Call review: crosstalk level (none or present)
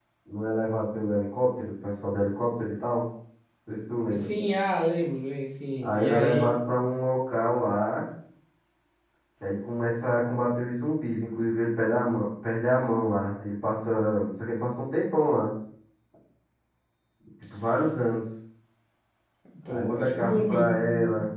present